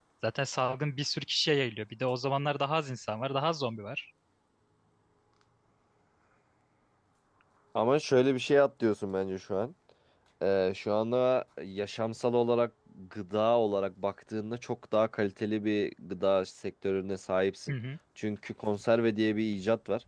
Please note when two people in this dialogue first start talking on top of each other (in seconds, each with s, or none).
none